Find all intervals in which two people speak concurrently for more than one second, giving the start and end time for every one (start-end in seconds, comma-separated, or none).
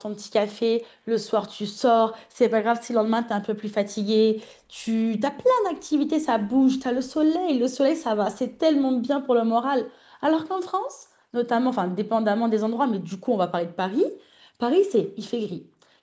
none